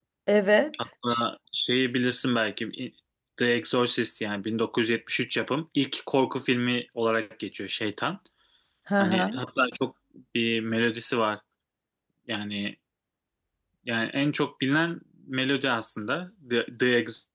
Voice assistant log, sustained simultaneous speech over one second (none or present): none